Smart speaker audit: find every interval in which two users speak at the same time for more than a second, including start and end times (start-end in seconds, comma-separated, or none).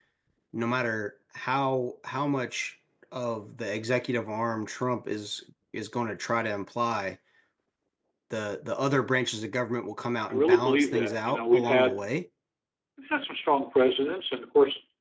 10.3-12.0